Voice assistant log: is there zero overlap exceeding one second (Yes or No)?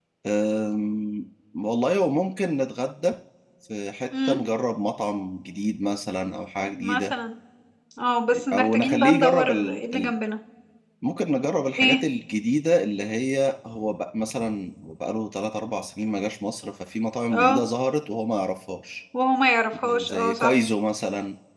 No